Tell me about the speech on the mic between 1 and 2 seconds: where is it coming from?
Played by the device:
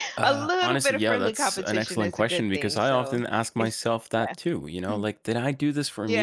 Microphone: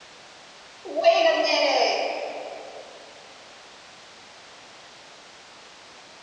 user only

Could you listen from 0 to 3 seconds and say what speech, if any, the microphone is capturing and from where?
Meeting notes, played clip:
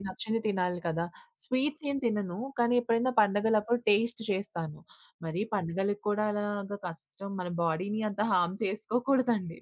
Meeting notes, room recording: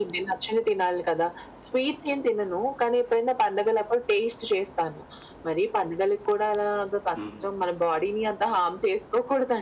echo only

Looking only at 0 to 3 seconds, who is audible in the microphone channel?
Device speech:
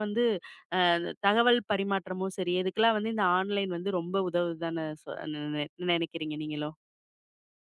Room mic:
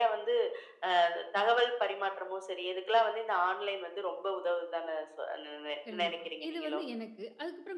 echo only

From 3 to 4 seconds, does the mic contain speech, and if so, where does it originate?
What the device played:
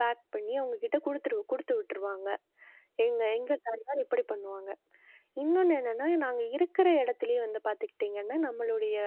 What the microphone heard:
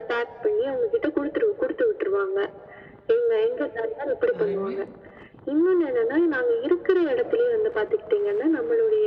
echo only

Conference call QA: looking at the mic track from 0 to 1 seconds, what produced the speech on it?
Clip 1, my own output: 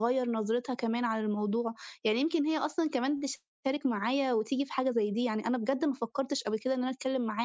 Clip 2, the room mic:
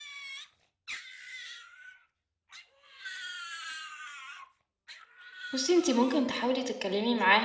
neither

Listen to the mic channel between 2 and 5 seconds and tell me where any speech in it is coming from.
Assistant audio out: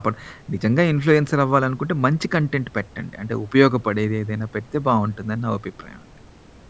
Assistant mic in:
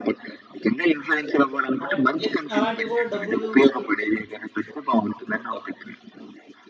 both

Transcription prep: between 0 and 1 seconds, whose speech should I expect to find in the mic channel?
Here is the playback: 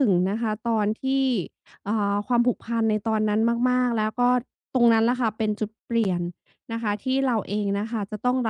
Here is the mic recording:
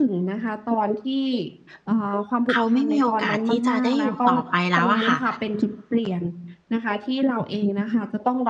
echo only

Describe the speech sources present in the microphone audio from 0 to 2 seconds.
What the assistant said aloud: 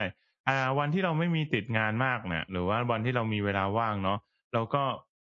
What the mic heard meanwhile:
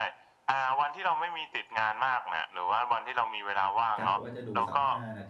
echo only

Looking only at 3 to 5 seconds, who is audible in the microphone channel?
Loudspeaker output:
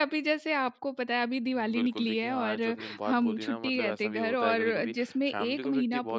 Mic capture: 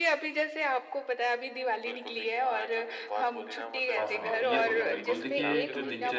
both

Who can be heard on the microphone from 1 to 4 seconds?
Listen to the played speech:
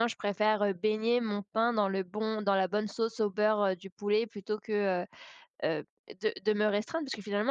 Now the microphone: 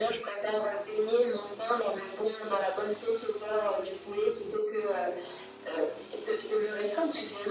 echo only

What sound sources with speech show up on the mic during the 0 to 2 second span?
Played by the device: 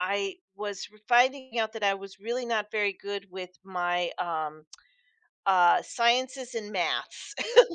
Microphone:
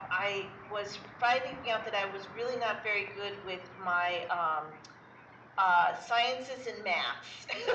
echo only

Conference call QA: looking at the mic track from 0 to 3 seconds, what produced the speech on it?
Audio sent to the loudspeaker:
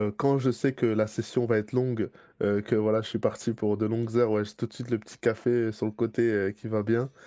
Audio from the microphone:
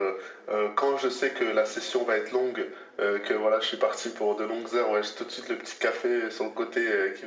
echo only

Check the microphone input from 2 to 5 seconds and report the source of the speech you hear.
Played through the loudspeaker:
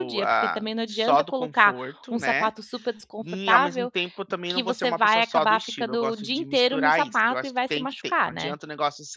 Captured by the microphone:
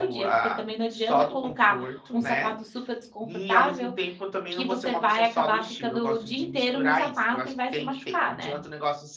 echo only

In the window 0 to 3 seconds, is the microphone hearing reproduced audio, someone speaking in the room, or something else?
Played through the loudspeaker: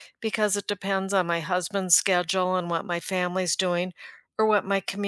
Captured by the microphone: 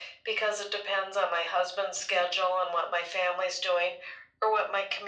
echo only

